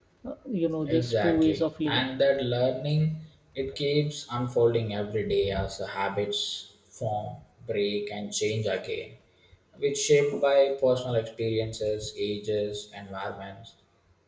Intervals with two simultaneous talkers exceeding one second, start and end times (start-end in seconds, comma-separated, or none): 0.9-2.1